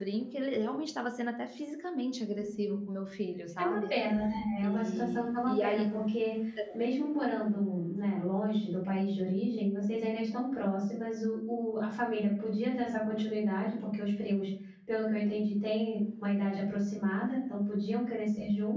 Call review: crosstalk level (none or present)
present